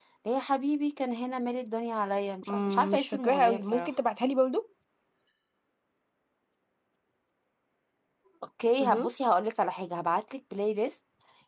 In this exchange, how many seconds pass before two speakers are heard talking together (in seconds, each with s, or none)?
2.5 s